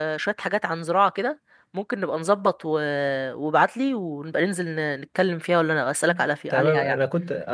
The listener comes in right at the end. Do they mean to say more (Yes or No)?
Yes